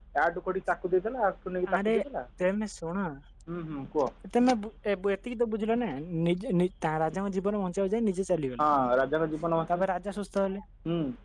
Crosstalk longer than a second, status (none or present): none